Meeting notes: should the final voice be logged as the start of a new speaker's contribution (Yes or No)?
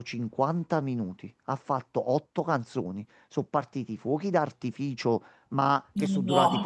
No